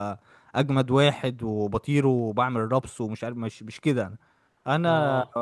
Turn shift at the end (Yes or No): No